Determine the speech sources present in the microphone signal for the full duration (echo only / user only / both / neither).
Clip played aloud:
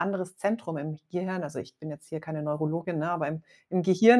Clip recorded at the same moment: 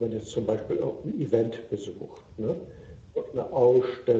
user only